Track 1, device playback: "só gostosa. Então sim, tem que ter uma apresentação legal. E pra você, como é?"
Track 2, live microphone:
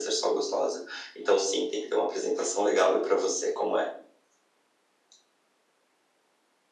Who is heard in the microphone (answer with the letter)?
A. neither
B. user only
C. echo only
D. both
C